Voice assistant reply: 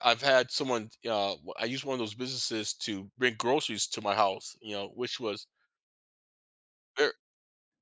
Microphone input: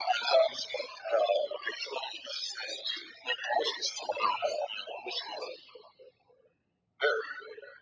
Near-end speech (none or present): none